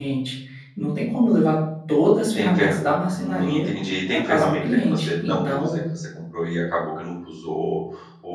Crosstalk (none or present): present